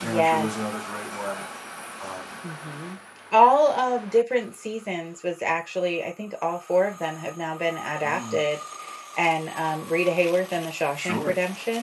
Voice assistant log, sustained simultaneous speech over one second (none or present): none